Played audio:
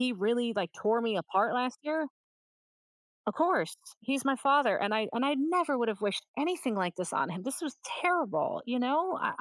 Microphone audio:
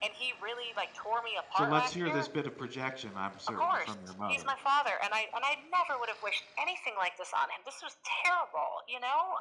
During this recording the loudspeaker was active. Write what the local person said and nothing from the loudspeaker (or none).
So let's hear this bit of projection, I'm certain, from your mother.